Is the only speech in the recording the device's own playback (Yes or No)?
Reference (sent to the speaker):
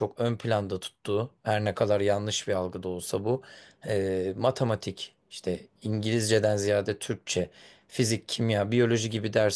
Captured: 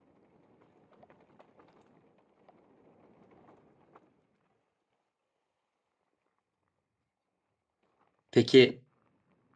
No